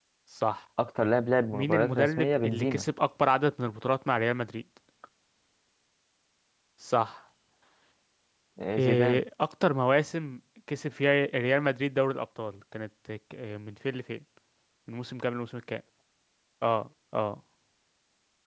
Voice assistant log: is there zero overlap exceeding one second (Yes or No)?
No